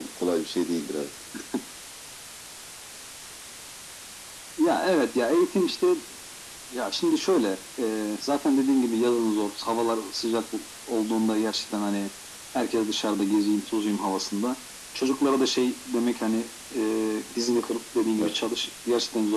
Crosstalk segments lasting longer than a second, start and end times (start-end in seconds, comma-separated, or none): none